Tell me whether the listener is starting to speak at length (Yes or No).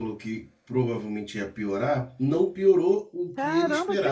Yes